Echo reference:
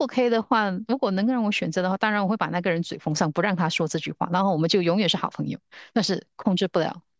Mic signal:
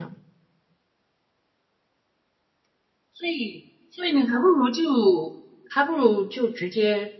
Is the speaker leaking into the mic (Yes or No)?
No